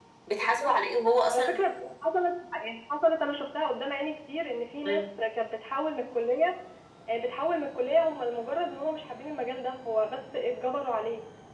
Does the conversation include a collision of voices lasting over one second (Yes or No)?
No